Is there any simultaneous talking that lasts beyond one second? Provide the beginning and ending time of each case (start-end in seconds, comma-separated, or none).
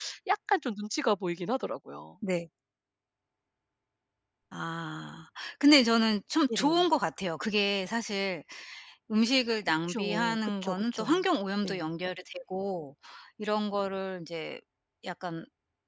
9.9-11.2